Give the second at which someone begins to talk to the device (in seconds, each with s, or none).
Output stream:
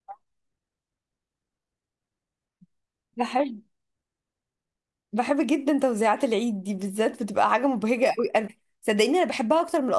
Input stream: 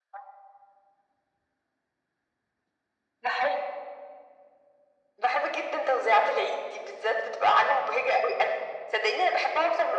none